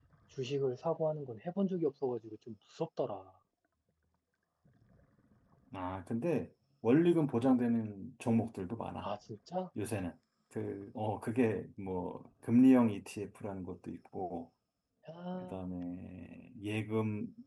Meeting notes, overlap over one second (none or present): none